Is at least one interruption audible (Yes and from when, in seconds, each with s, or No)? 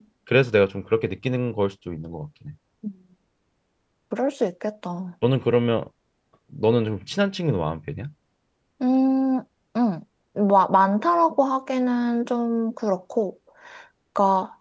No